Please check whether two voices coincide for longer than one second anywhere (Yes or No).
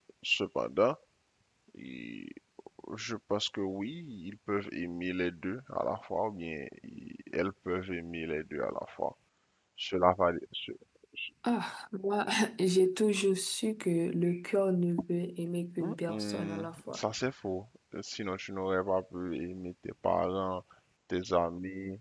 Yes